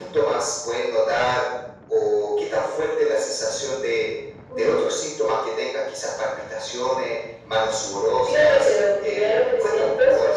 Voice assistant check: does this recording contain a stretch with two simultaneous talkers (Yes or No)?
Yes